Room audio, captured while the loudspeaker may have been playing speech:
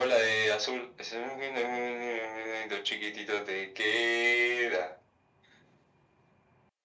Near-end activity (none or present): none